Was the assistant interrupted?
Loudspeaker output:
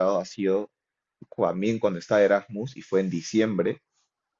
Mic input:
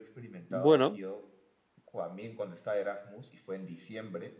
Yes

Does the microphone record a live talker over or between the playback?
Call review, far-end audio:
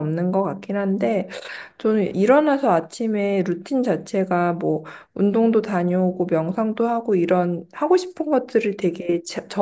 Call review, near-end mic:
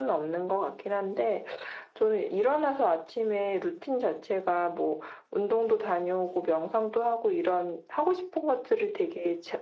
No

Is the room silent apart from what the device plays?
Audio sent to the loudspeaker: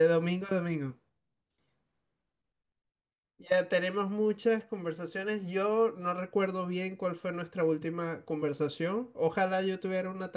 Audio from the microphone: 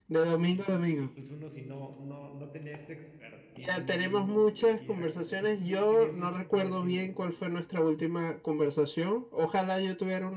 No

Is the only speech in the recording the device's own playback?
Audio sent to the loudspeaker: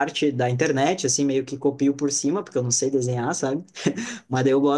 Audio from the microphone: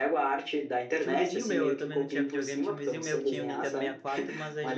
No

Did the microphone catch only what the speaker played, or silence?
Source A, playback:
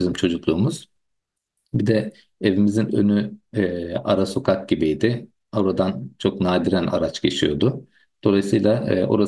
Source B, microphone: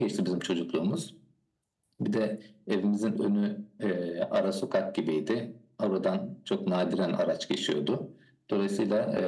Yes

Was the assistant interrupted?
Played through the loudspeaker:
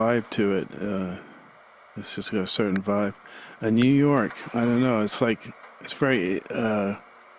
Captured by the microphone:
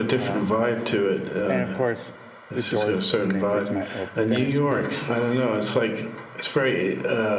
Yes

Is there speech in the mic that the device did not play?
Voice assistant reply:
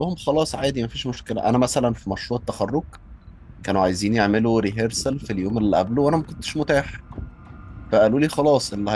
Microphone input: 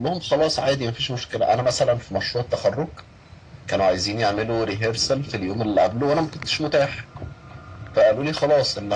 No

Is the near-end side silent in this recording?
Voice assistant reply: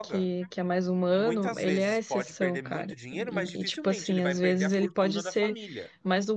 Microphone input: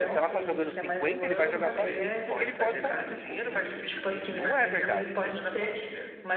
No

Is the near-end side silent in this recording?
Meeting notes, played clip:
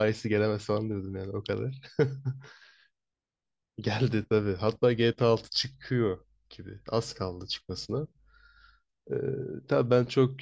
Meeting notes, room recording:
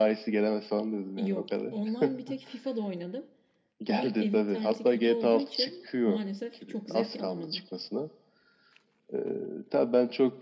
No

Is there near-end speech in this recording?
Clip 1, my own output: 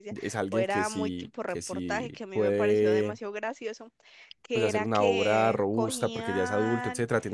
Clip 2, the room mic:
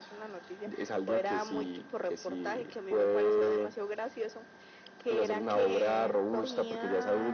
No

